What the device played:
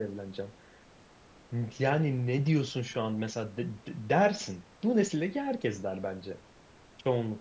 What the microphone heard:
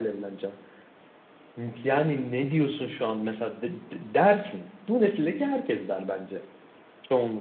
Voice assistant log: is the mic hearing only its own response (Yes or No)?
Yes